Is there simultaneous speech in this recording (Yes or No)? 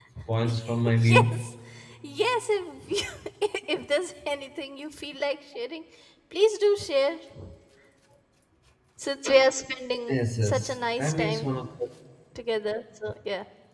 Yes